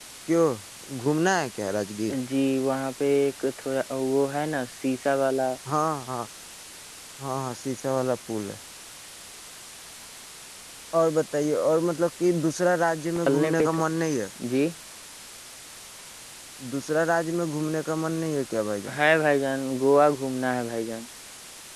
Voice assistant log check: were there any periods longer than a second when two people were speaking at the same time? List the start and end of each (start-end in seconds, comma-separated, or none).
none